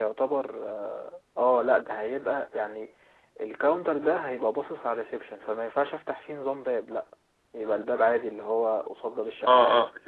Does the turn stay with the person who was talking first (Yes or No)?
No